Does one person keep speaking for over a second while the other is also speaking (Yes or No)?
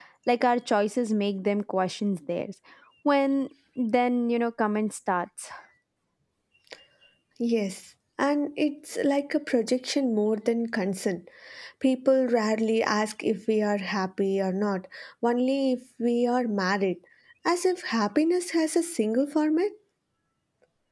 No